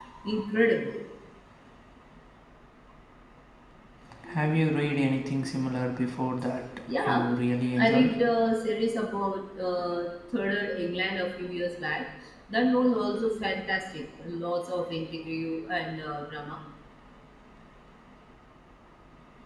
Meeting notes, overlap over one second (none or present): none